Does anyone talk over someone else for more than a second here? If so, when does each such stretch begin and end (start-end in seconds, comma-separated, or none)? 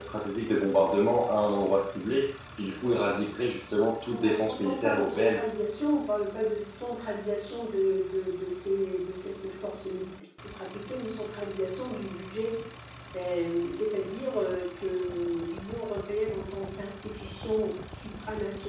4.1-5.5